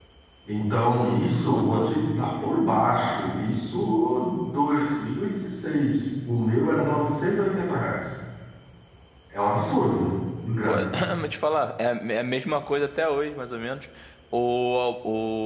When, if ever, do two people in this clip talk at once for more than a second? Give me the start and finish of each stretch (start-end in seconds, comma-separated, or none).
none